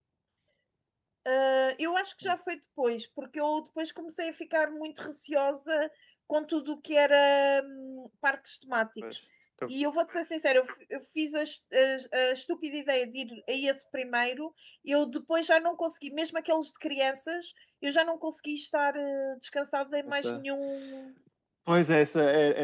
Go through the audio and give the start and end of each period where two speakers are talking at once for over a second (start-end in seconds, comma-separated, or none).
none